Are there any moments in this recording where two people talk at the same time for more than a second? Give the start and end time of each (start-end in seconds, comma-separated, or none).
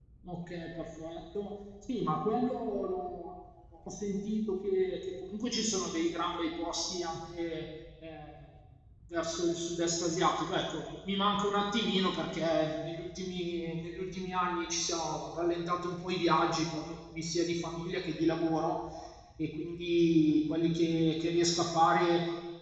none